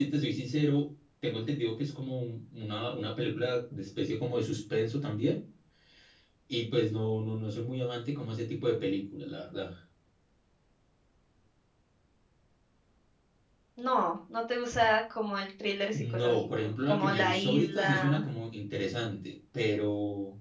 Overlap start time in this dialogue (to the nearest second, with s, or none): 16 s